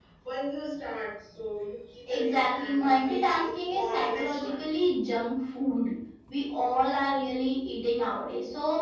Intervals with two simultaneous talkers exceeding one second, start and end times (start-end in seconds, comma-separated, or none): 2.1-4.5